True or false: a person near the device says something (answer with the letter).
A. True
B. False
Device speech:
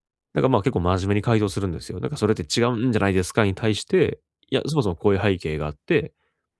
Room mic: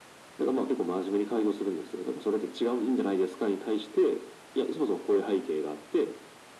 B